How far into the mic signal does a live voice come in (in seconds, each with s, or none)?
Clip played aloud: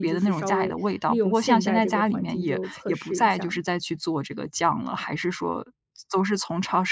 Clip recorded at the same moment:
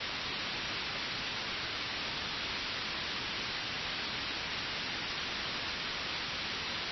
none